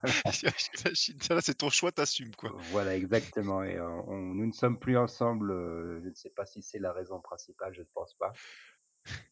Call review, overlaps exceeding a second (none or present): none